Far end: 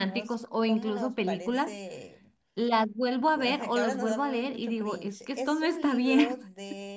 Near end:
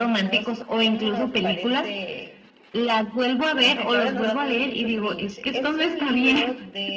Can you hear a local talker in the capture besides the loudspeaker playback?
No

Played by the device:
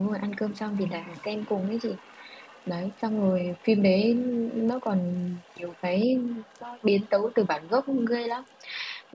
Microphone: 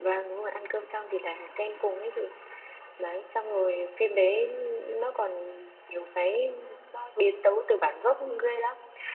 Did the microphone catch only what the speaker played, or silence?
Yes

